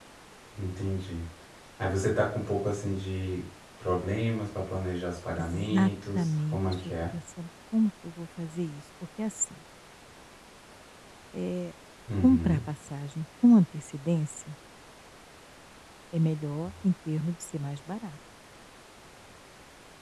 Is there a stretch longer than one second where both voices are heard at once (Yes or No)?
Yes